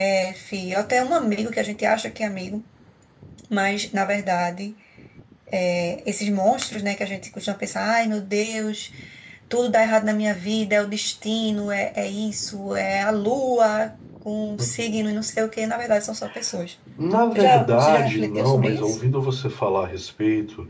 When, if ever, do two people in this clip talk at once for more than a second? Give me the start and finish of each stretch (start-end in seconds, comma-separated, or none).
17.3-19.0